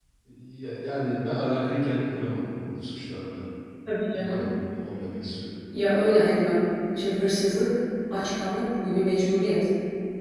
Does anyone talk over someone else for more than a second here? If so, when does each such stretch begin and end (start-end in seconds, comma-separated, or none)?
none